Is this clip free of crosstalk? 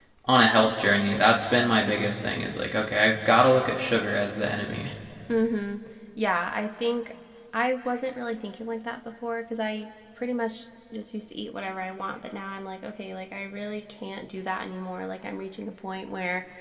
Yes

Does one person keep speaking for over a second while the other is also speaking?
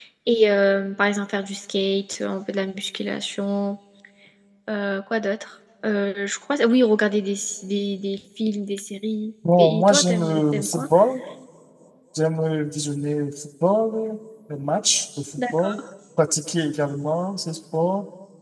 Yes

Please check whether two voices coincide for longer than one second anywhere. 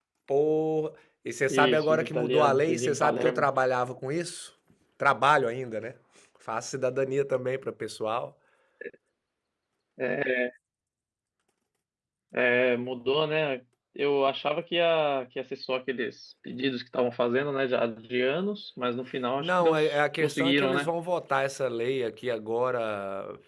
Yes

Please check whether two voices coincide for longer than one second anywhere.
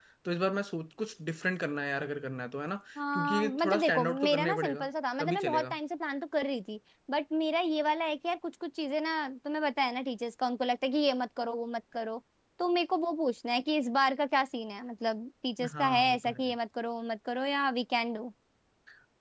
Yes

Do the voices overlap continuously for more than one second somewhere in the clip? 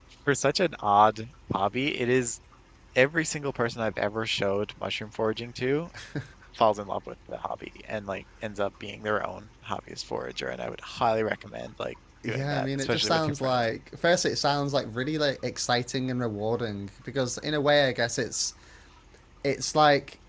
Yes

